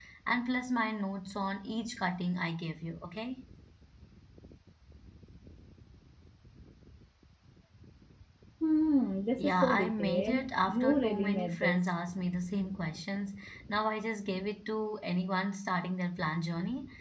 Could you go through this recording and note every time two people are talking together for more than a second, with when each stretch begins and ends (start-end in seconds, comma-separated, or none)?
9.4-11.8